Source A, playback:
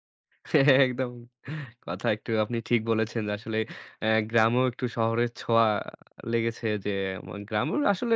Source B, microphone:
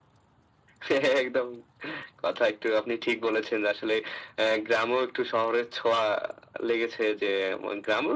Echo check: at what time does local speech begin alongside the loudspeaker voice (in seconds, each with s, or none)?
none